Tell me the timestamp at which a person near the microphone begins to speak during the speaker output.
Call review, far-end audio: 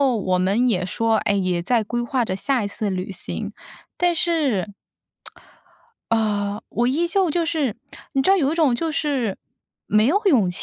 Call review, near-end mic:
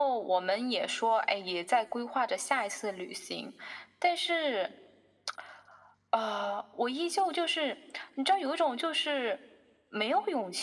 none

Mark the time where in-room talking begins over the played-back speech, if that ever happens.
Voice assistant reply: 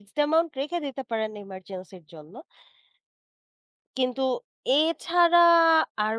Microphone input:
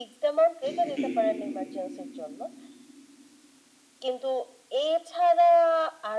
1 s

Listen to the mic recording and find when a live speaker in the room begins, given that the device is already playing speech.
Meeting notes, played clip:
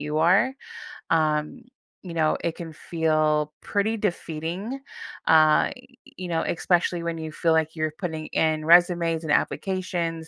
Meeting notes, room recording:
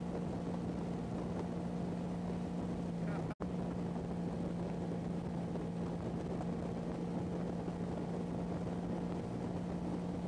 none

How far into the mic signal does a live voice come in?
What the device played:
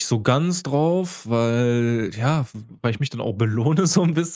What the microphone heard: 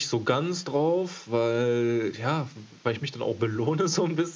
none

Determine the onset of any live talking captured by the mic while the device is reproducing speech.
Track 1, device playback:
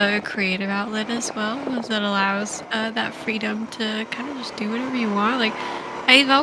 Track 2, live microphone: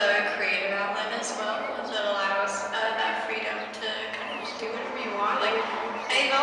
4 s

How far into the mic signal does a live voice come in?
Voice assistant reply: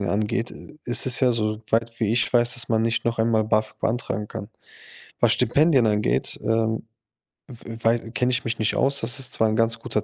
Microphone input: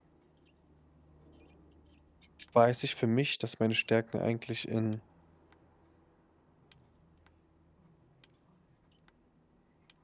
3 s

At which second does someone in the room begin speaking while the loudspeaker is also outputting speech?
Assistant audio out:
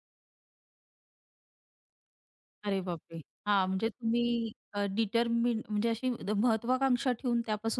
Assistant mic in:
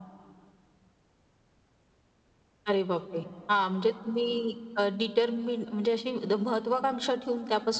none

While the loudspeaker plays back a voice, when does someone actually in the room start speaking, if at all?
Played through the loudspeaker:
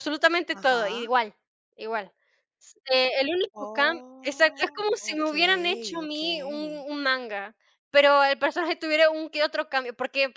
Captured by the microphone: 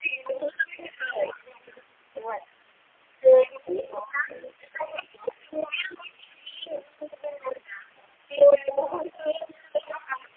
none

